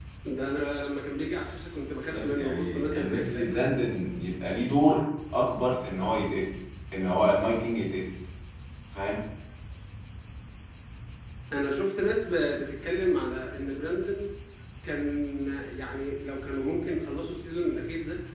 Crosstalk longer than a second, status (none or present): present